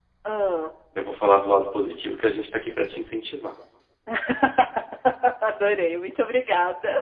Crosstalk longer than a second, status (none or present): none